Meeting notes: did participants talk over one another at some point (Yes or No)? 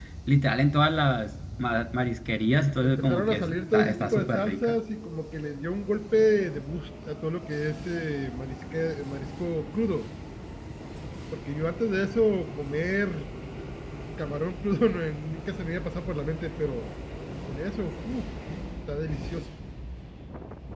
Yes